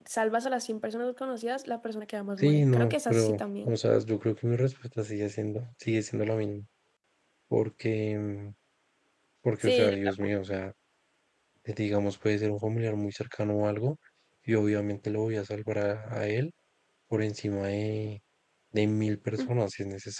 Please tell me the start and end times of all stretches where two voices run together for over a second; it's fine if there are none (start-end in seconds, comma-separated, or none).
2.4-3.7